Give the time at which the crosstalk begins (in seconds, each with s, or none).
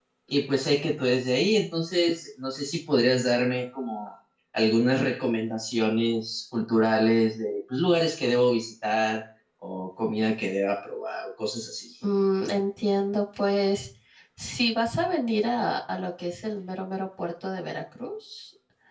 none